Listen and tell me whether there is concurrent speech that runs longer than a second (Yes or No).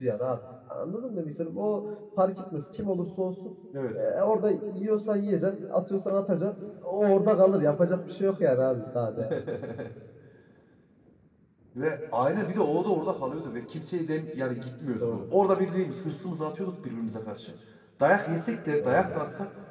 No